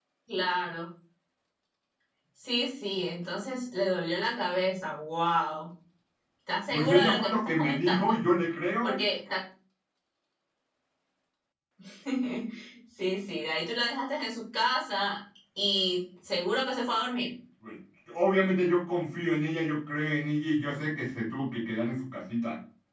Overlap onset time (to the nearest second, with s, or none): 7 s